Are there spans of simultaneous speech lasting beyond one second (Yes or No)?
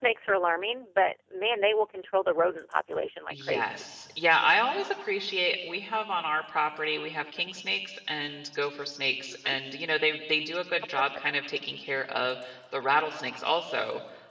No